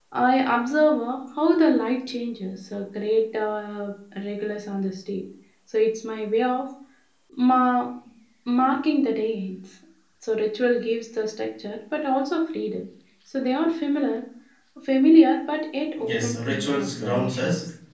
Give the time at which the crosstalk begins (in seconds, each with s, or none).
16.0 s